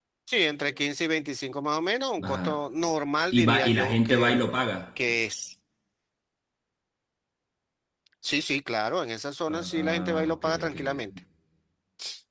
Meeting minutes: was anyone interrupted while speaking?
Yes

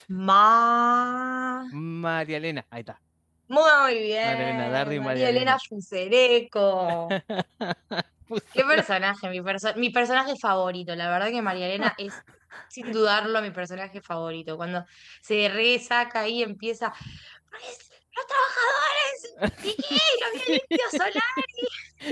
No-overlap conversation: No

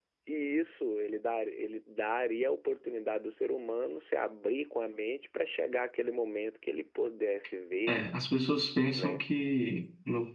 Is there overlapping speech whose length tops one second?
No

